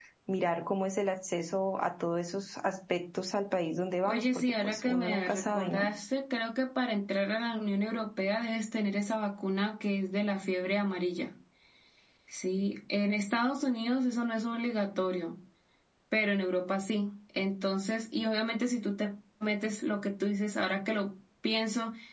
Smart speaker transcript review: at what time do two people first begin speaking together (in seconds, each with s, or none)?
4.0 s